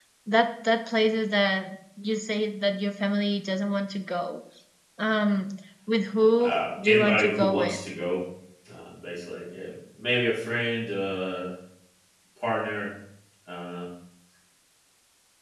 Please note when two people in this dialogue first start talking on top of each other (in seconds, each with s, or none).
6.4 s